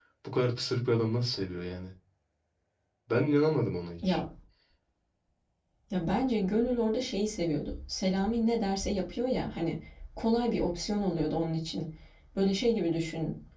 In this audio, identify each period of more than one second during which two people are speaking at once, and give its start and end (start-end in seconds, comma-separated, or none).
none